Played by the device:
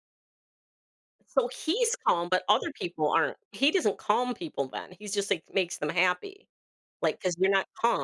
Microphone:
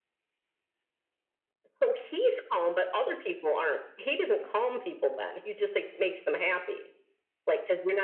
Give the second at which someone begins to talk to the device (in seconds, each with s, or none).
none